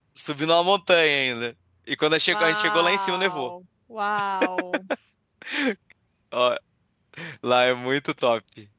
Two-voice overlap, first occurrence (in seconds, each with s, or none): 2.3 s